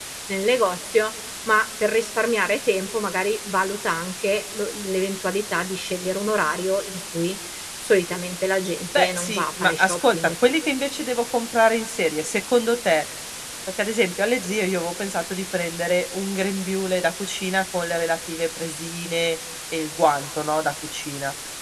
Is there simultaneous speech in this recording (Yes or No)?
Yes